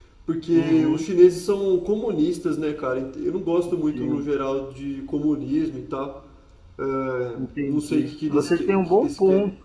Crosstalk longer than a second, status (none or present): present